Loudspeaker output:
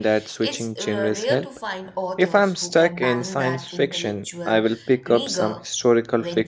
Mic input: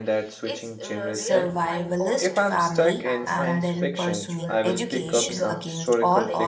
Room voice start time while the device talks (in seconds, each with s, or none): 1.1 s